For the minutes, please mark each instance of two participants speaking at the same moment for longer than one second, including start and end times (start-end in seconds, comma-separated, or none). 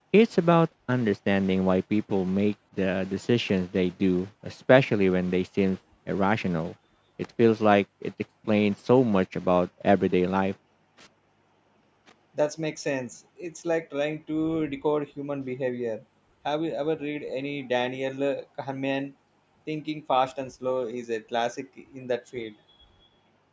none